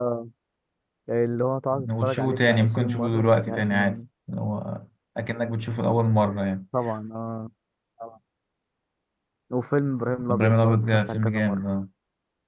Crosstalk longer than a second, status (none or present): present